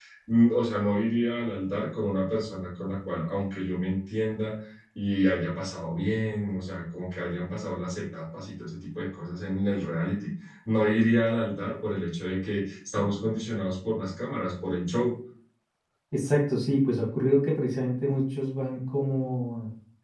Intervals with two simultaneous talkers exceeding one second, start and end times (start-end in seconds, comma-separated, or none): none